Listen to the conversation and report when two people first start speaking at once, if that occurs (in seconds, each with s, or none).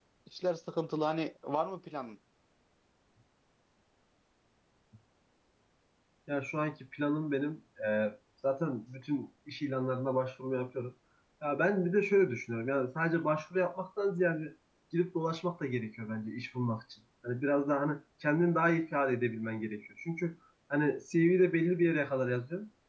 none